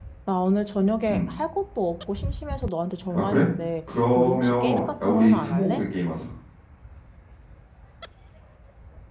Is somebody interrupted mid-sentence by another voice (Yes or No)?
Yes